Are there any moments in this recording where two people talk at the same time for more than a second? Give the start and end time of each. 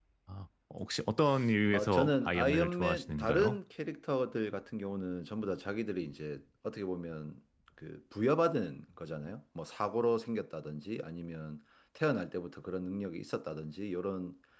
1.7-3.6

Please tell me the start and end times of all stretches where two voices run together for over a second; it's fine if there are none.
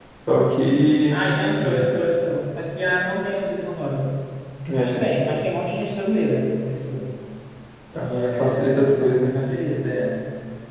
7.9-9.3

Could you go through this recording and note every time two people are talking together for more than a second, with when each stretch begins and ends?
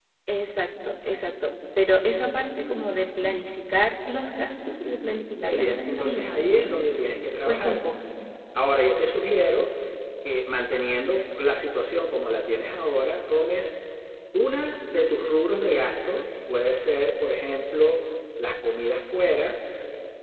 5.4-6.8

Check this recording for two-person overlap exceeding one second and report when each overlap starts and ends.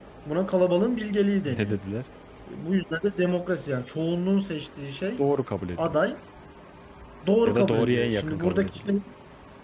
7.4-8.9

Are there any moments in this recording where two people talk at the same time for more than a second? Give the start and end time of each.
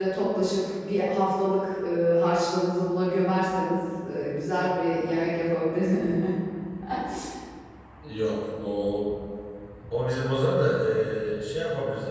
none

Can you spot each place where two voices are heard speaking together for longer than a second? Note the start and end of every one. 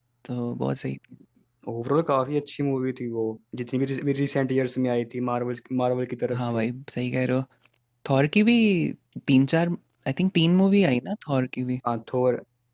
none

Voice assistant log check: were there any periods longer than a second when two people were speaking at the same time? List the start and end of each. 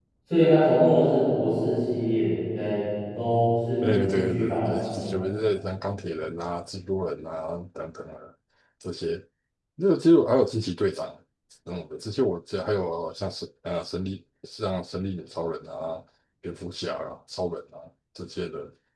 3.8-5.2

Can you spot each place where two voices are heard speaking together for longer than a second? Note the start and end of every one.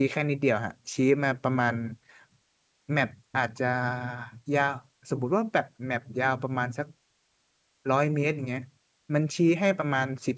none

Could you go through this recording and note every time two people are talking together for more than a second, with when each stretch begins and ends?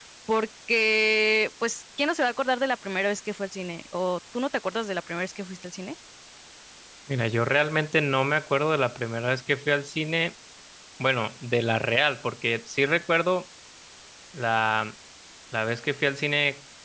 none

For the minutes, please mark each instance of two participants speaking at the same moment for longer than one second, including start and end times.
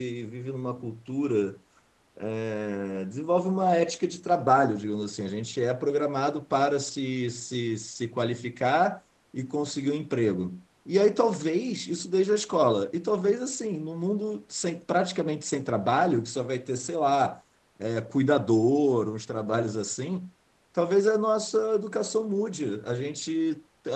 none

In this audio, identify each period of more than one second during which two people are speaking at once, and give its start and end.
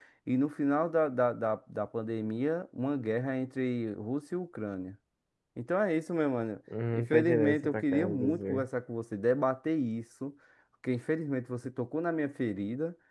6.9-8.7

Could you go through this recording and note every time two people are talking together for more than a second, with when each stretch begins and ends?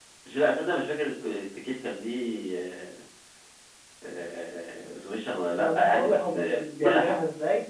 5.6-7.1

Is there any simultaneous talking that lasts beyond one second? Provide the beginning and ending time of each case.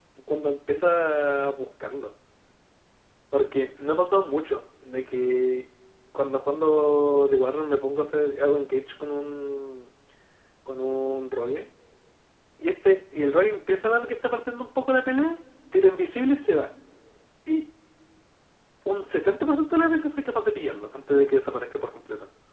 none

